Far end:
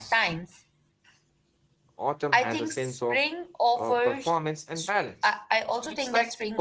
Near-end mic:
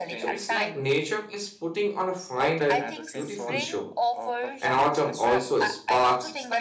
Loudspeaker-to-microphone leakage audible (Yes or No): Yes